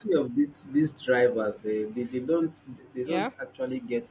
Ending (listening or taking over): listening